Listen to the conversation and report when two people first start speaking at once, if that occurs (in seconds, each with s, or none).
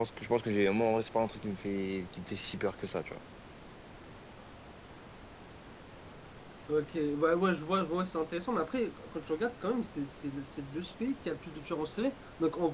none